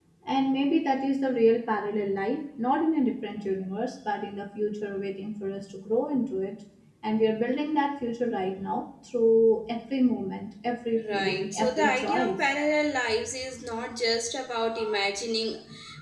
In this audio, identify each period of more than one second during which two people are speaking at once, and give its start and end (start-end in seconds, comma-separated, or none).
11.1-12.4